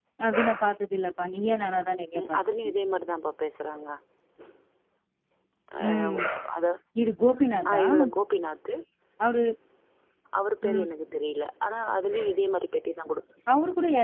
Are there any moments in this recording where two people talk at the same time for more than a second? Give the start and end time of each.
none

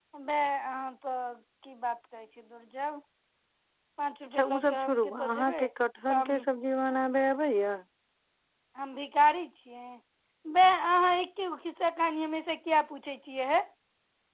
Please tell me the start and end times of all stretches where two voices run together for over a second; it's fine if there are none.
4.2-5.7

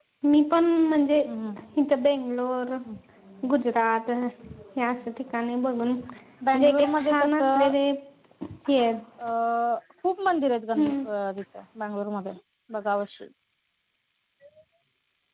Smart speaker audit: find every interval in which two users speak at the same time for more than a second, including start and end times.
6.5-7.7

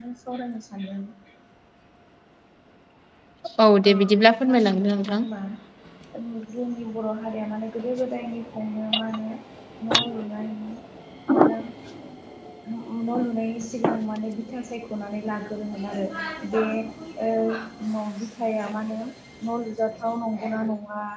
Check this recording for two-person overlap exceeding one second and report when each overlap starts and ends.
3.9-5.2

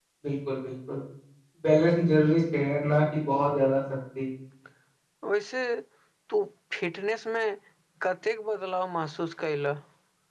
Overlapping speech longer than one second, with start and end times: none

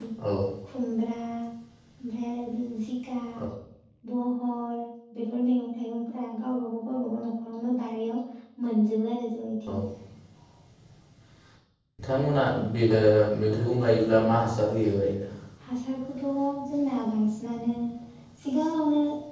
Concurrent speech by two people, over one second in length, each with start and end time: none

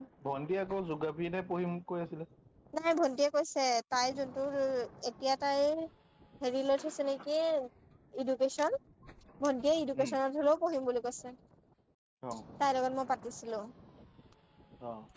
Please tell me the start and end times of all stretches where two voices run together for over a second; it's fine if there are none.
none

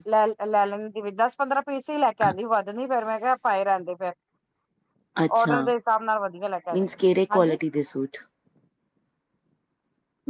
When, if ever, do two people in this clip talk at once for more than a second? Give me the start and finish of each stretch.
none

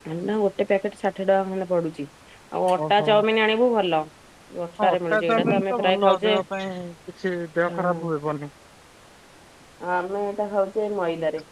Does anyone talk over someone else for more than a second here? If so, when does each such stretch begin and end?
4.8-6.4

